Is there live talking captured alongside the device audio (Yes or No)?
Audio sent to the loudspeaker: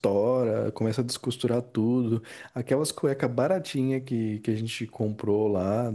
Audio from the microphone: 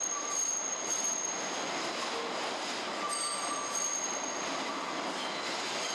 No